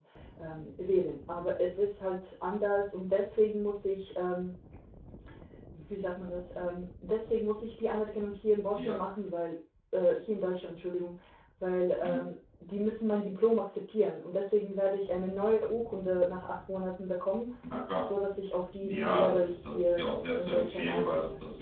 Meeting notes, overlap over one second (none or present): present